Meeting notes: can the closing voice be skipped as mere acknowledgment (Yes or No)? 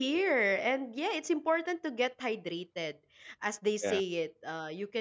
Yes